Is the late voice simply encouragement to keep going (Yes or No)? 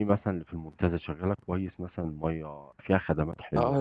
No